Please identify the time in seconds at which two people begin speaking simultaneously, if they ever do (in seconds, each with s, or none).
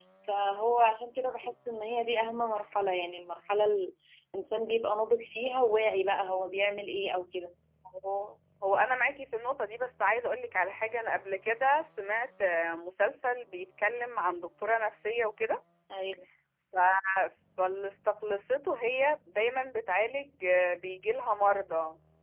none